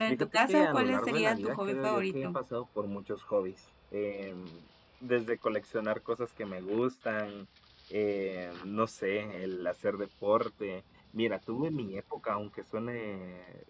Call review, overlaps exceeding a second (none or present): present